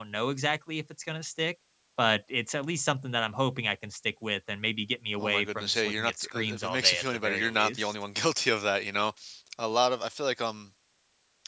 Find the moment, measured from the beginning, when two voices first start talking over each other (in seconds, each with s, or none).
5.2 s